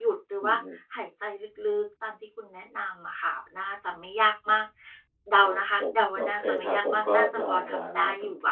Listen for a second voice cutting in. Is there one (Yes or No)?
Yes